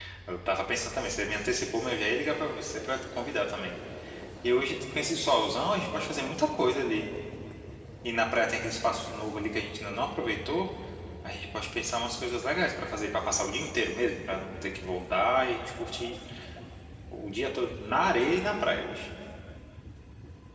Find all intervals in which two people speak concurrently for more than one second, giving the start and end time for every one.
none

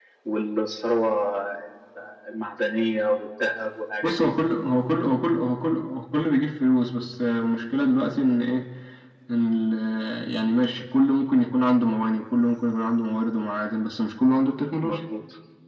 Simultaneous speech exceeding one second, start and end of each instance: none

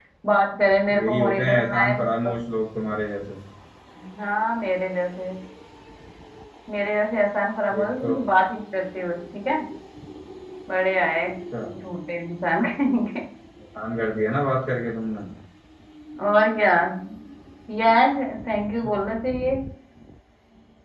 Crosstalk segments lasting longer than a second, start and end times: 1.0-2.3

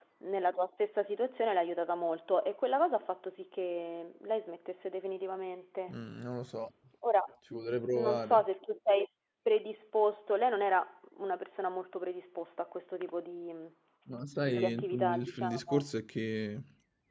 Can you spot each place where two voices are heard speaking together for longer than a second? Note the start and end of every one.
14.5-15.8

